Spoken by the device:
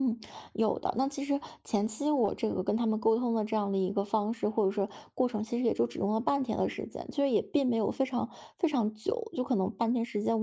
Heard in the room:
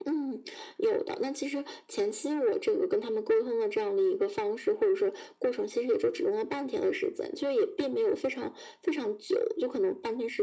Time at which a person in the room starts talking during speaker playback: none

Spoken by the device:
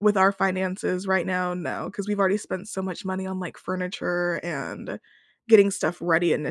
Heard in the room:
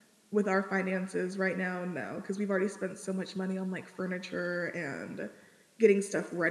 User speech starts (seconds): none

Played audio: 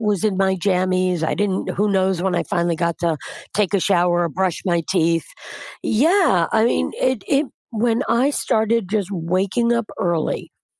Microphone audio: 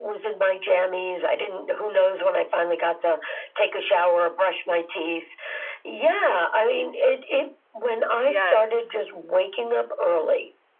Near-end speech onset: 8.2 s

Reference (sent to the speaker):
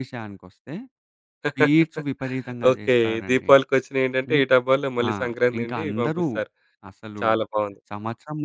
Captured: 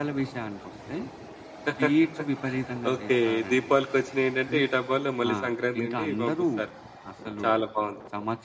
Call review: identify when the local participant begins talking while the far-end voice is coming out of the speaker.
none

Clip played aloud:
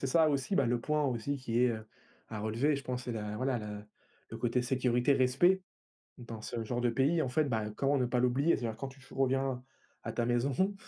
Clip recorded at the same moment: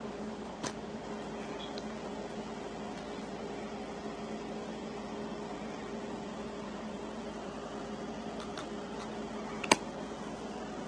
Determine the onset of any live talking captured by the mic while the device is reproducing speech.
none

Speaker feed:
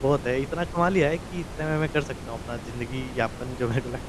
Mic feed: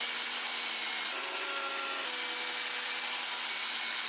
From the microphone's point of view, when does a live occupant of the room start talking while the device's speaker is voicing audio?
none

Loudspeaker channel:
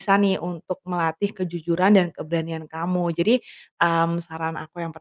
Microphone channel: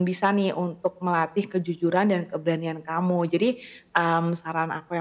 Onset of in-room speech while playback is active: none

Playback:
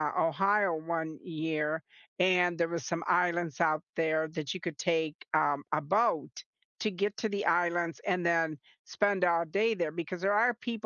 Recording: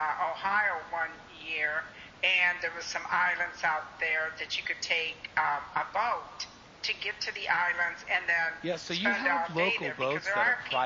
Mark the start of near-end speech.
8.6 s

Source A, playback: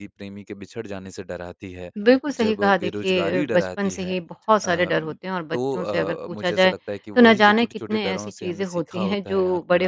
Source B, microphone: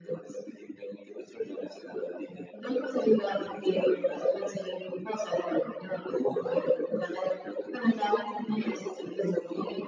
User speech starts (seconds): none

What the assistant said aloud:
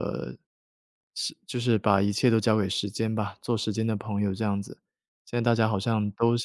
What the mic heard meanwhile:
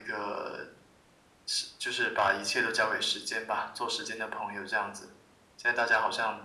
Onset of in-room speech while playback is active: none

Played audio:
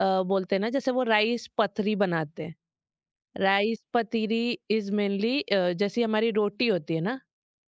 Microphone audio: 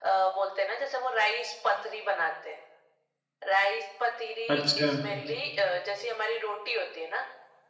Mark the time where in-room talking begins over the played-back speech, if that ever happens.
4.5 s

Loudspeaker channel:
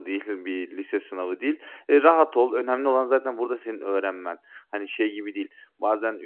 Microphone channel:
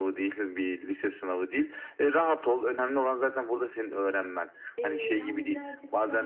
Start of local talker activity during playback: 4.8 s

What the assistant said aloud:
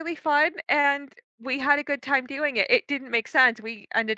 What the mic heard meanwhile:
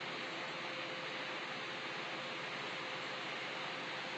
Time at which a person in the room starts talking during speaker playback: none

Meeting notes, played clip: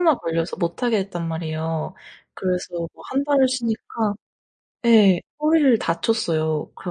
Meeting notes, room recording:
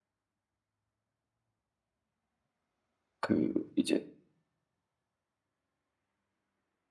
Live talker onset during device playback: 3.2 s

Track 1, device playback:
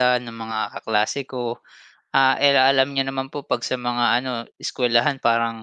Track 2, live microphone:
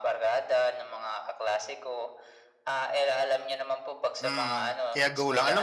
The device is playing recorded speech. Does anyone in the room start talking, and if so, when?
4.2 s

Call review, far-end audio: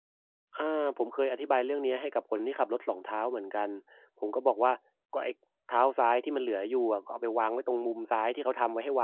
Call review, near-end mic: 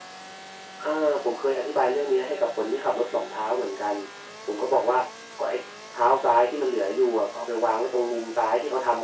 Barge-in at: none

